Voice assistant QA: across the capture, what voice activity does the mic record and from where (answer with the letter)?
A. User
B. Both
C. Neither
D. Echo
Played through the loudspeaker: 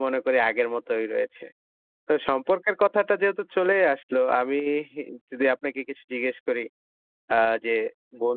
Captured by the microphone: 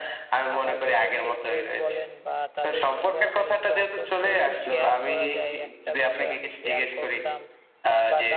B